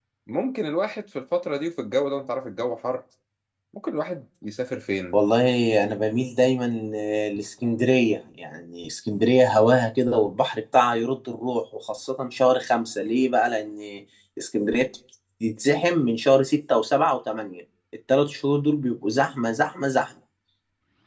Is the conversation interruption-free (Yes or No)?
Yes